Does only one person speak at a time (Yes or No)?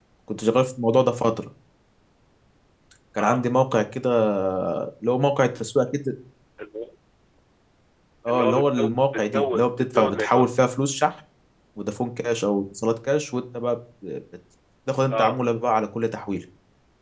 No